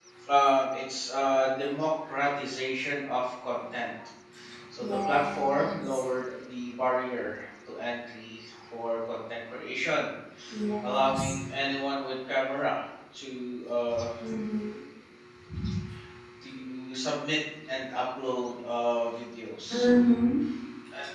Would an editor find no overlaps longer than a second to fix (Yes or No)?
No